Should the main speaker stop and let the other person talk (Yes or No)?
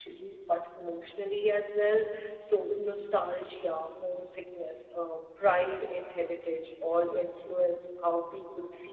Yes